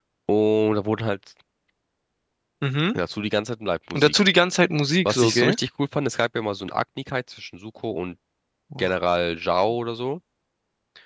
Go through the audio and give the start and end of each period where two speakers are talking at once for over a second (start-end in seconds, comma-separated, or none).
none